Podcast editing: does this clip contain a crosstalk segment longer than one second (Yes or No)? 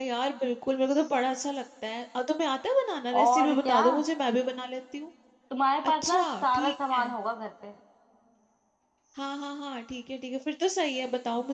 Yes